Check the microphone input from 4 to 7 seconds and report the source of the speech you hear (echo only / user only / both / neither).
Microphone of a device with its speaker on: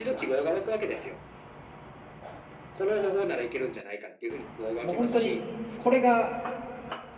both